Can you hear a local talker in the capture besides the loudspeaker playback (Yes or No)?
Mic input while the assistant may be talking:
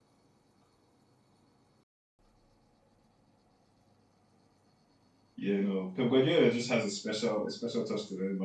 Yes